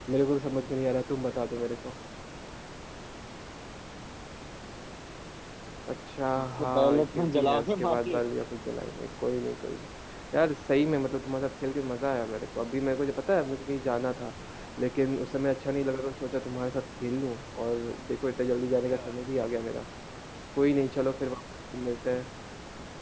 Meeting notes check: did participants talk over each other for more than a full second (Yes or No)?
Yes